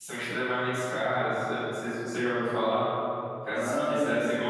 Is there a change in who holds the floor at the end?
No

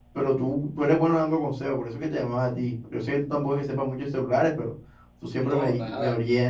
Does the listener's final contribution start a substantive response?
No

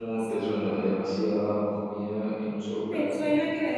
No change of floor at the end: No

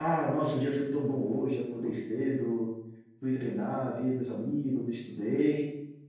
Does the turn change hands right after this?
No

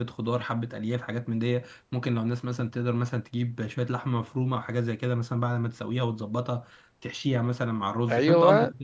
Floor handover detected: No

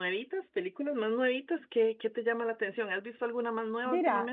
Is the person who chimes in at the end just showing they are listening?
No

